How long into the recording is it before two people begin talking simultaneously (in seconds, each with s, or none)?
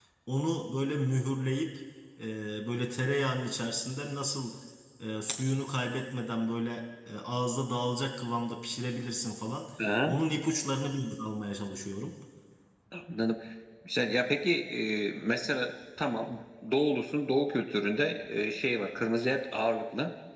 none